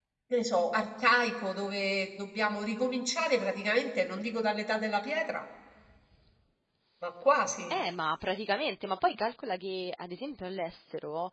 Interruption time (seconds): none

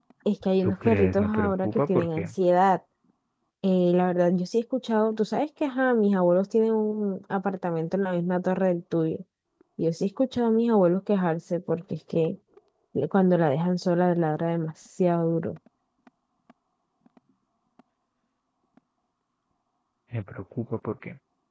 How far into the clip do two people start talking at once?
1 s

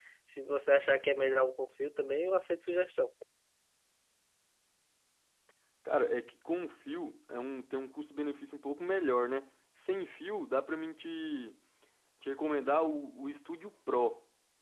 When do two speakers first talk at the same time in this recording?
none

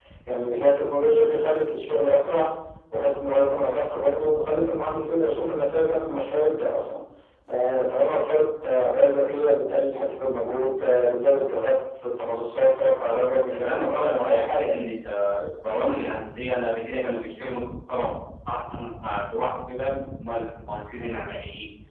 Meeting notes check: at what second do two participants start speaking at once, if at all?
13 s

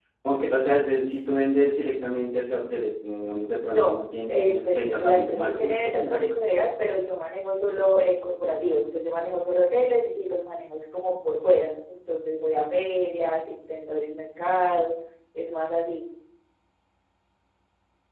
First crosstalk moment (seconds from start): 4 s

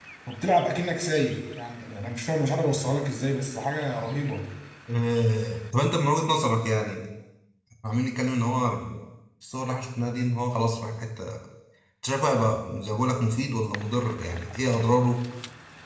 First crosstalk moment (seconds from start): none

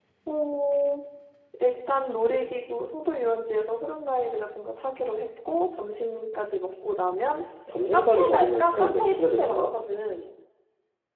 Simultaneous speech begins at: 8 s

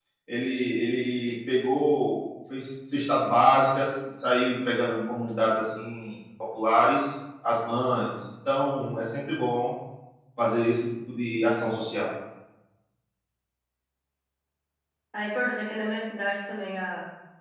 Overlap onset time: none

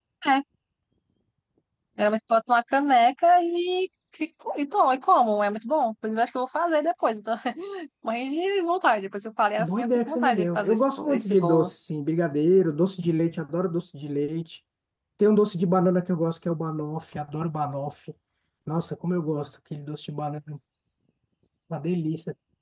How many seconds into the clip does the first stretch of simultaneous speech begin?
10 s

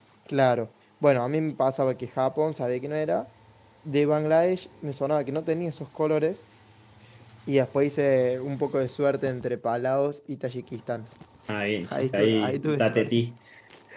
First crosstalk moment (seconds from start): 12 s

